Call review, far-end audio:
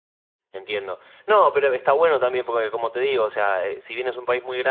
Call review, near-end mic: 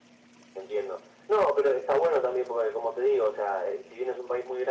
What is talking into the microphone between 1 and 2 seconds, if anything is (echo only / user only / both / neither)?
echo only